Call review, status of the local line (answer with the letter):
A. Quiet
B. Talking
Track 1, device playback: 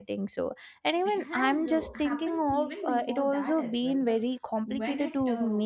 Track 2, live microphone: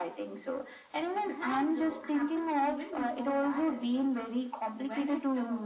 A